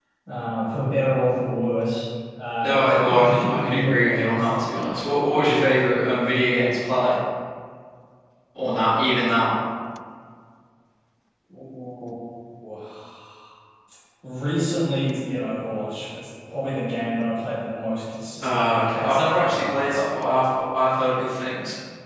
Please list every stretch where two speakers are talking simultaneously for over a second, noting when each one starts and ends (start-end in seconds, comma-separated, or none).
2.6-4.5, 18.4-20.0